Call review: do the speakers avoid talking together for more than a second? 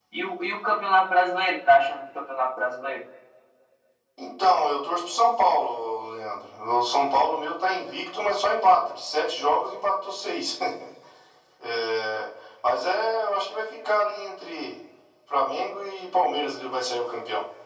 Yes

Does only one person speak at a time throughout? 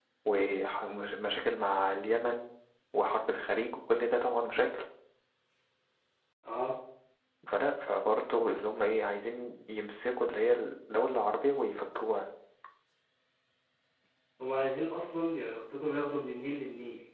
Yes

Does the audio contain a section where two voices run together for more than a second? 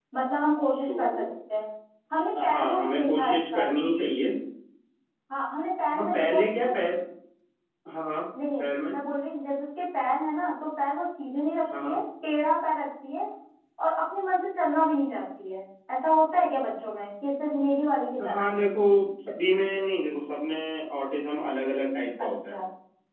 Yes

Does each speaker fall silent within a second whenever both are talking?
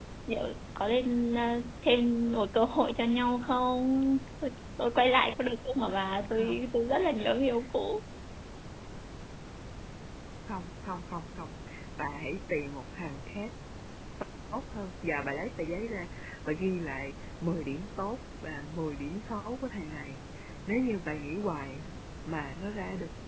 Yes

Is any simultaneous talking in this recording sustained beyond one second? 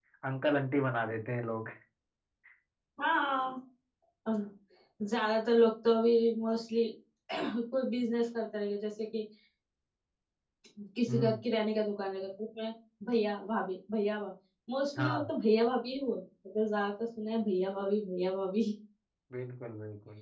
No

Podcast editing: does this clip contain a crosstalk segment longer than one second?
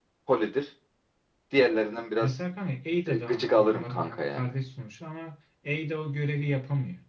Yes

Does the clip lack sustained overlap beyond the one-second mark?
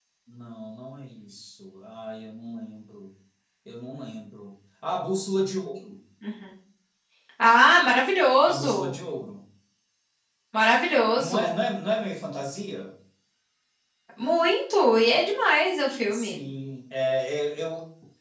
Yes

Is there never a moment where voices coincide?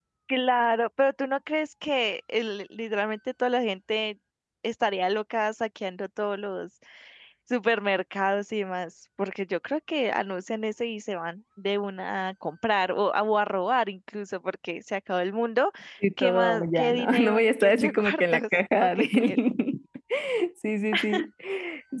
No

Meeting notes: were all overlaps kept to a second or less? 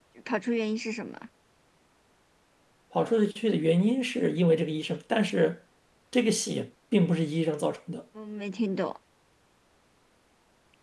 Yes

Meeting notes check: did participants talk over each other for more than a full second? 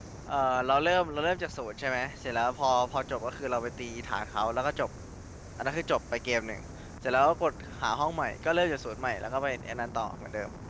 No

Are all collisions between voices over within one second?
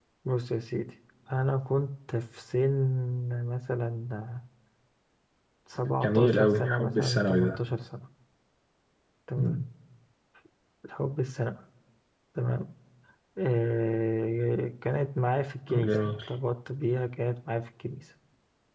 No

